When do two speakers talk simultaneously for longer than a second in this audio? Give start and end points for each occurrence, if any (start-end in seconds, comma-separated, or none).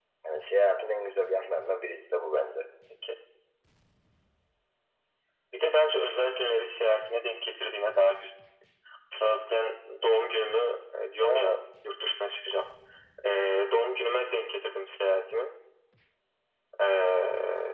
none